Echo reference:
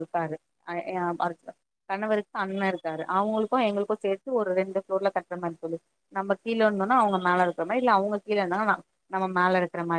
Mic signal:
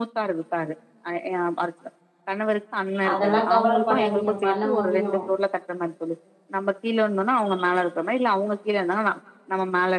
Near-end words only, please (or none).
அதெல்லா கவலைப்படாதீங்க பண்ண முடி டியும்